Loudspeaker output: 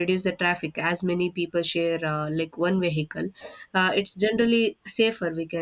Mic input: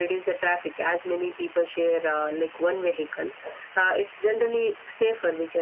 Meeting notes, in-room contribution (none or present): none